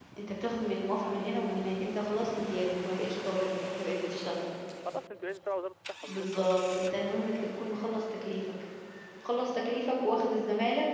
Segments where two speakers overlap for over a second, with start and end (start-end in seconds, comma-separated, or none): none